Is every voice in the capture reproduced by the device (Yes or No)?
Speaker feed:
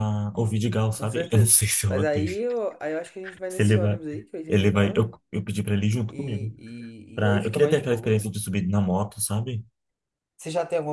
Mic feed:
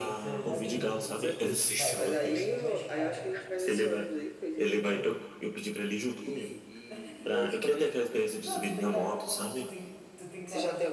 No